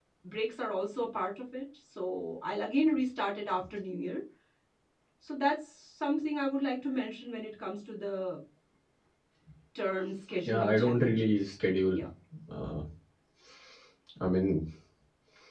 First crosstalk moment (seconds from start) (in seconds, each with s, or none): 10.4 s